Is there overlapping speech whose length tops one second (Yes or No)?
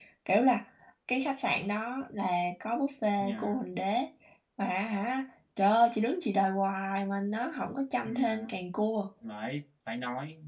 No